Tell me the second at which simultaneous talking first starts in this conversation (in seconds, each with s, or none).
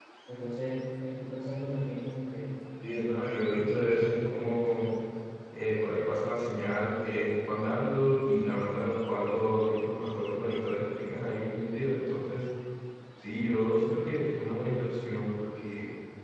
3.5 s